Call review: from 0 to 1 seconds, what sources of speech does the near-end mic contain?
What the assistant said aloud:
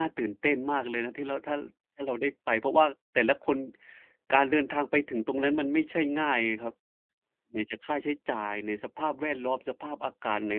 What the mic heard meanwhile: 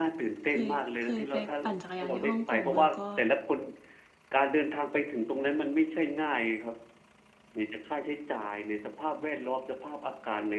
both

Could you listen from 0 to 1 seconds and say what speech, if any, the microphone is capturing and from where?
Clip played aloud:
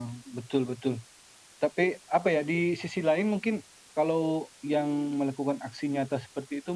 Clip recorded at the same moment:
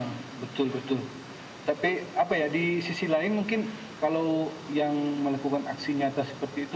echo only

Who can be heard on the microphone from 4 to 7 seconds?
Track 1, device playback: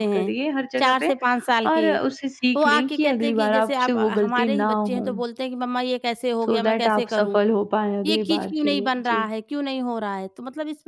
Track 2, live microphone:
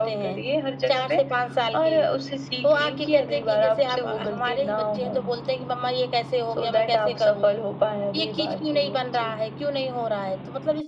echo only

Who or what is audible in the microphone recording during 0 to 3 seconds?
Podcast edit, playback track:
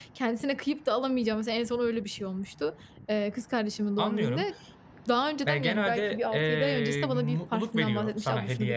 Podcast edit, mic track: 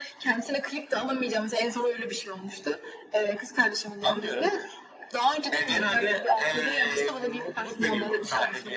echo only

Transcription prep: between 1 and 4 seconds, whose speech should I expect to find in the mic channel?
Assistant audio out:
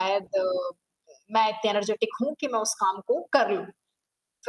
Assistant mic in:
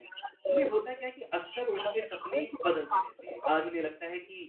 both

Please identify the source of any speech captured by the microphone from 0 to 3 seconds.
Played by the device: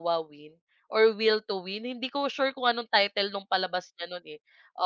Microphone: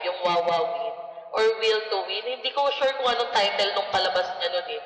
echo only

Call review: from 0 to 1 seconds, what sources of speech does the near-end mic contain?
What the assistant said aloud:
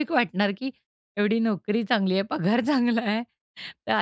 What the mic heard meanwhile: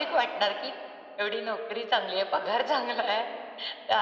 echo only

